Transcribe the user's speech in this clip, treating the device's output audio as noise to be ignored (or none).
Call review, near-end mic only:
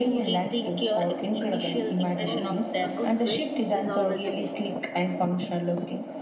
Oh, a good twist is always a win.